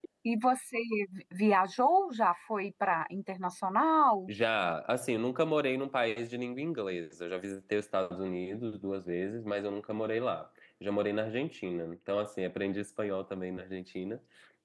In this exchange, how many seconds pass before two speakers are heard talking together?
none

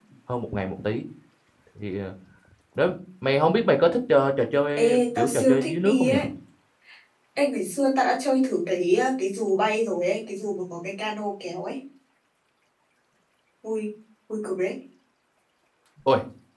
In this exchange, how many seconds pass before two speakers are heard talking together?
5 s

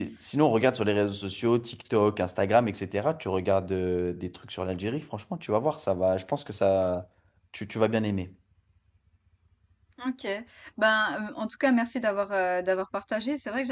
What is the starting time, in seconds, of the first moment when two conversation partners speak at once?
none

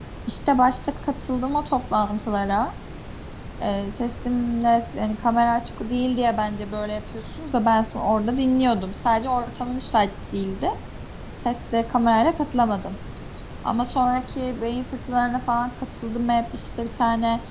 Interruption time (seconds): none

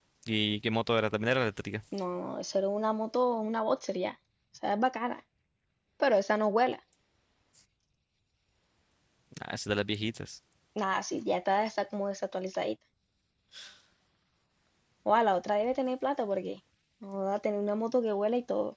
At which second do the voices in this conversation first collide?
none

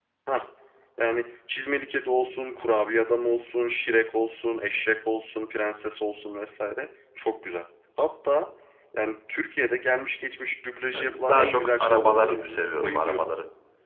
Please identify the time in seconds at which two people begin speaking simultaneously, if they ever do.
11 s

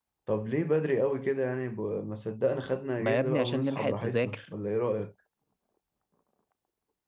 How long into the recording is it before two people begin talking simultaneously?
3 s

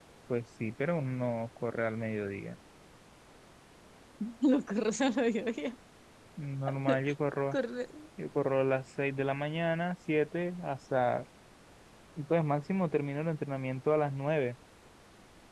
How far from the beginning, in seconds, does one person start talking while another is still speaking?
none

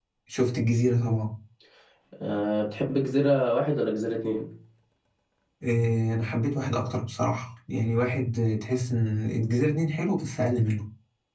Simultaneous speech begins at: none

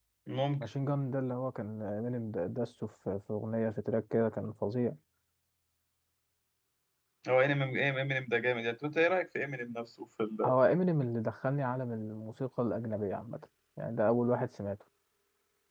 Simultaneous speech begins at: none

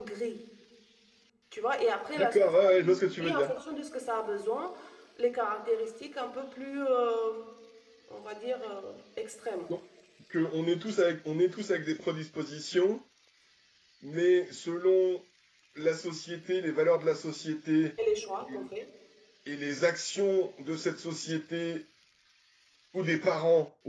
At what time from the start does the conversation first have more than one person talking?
2 s

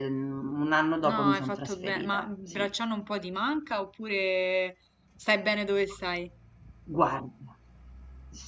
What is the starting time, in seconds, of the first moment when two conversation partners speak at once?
1 s

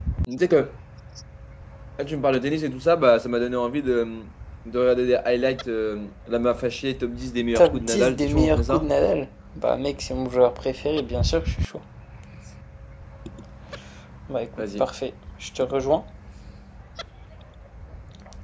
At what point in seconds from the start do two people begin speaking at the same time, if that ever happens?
8 s

